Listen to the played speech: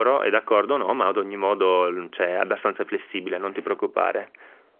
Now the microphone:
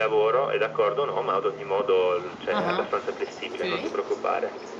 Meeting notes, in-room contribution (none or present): present